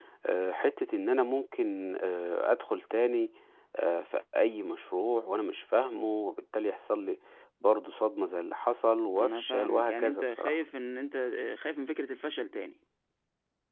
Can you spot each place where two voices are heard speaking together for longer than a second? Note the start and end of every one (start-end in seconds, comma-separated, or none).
9.2-10.6